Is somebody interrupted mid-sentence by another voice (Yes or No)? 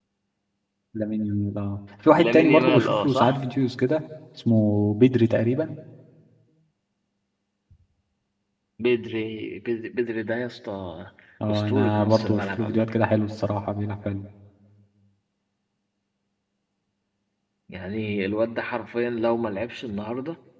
Yes